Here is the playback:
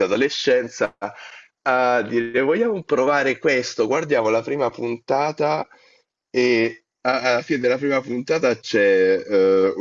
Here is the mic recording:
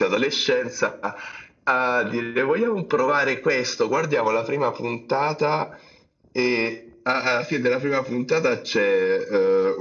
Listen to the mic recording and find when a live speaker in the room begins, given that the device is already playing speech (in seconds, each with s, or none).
none